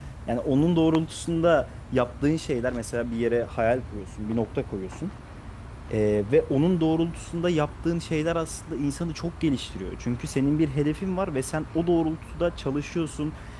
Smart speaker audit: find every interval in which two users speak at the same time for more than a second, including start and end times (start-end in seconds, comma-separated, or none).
none